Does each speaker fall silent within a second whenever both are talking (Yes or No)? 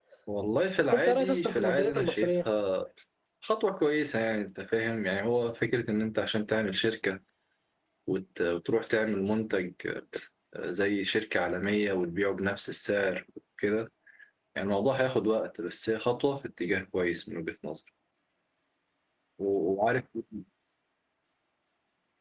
No